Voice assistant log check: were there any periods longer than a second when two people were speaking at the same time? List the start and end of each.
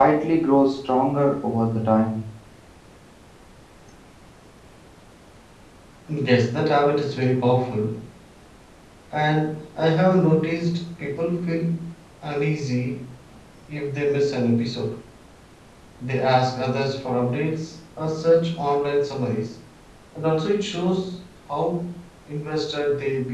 none

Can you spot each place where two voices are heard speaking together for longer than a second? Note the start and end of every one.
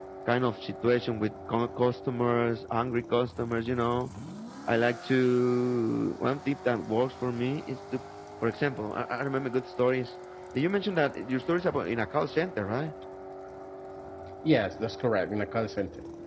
none

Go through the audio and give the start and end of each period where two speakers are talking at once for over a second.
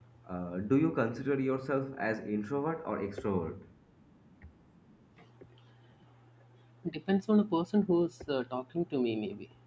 none

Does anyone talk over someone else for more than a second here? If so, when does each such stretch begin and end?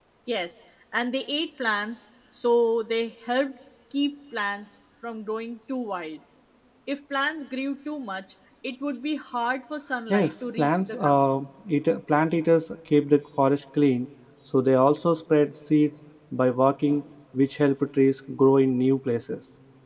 10.1-11.3

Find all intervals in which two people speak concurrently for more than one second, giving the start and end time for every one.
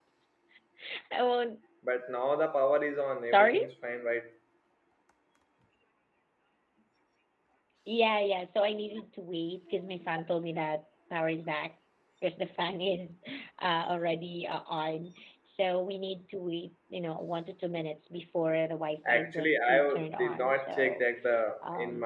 19.1-21.1

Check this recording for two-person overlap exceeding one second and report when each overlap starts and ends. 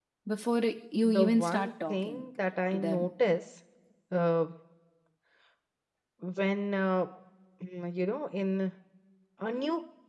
1.0-2.2

